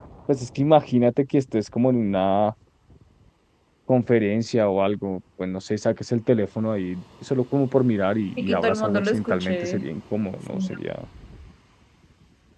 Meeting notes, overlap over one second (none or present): present